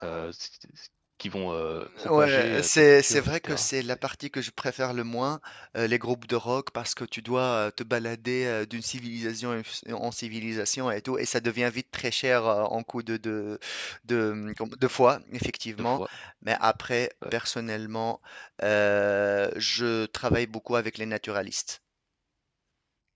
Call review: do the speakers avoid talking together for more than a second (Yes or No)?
No